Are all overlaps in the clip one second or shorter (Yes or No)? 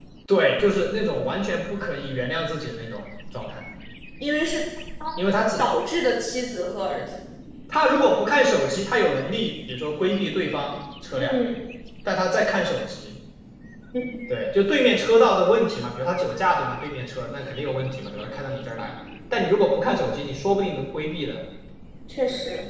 Yes